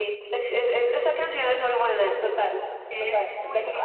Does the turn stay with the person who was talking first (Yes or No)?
No